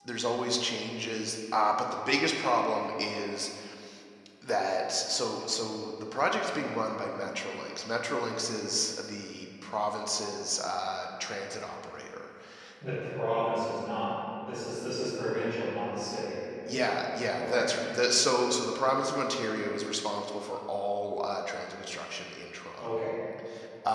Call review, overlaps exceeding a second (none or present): none